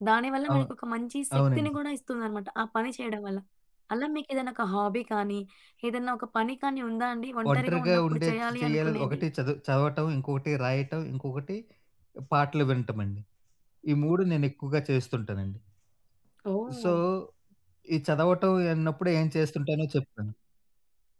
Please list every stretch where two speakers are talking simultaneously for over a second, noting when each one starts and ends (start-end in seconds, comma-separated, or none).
7.5-9.2